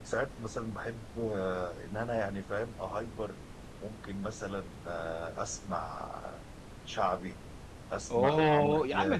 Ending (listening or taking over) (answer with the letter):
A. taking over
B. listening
A